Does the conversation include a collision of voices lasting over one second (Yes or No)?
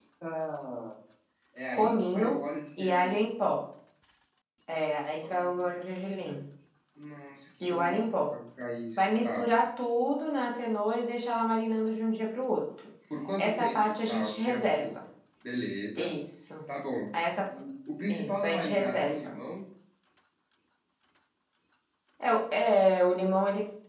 Yes